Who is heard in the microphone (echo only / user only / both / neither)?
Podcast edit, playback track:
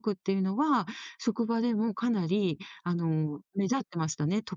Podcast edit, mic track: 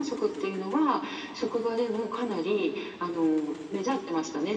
echo only